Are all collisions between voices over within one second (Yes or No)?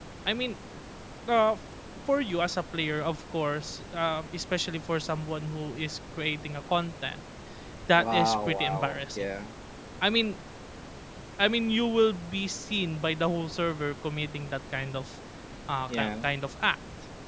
No